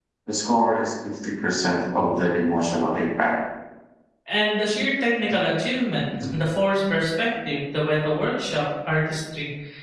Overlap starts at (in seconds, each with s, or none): none